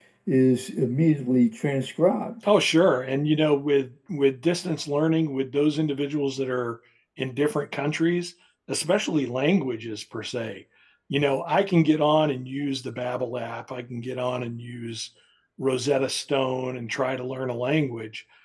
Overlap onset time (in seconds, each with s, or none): none